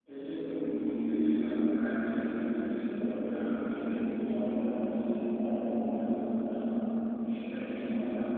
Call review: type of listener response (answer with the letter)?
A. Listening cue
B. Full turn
A